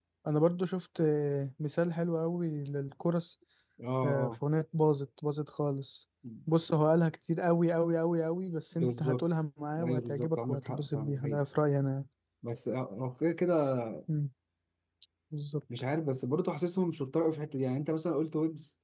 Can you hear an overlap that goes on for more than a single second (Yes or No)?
Yes